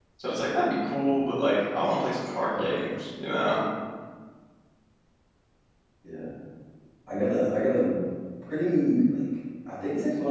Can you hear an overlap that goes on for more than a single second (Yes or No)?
No